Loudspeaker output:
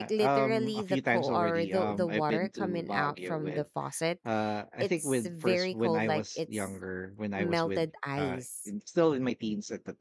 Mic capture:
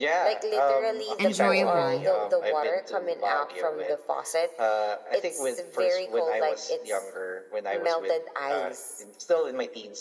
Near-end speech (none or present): present